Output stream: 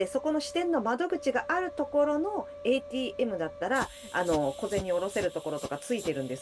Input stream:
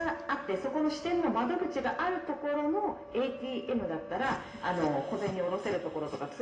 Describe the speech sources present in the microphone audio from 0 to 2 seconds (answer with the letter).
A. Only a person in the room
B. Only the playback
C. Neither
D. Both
B